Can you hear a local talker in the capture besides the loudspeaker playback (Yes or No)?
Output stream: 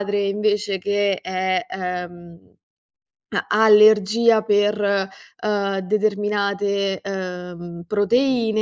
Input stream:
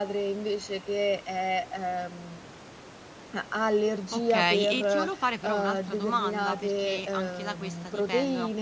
Yes